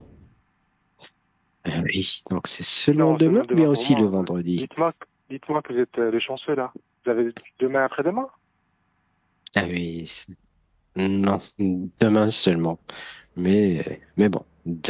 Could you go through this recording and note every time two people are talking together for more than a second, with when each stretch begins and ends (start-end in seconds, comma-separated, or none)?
3.0-4.6